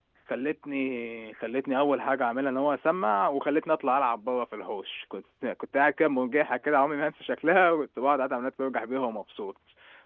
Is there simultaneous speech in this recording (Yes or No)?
No